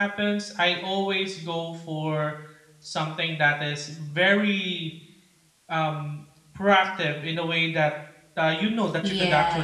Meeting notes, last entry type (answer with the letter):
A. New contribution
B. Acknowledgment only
A